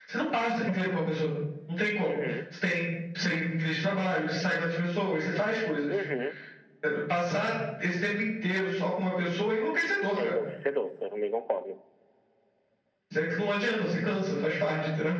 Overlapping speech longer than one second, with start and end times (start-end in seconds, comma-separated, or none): none